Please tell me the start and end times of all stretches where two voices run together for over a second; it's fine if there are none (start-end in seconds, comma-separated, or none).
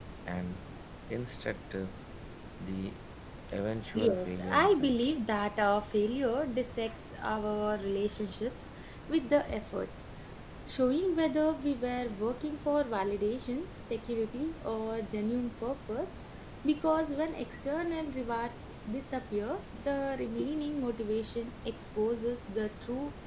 3.9-5.1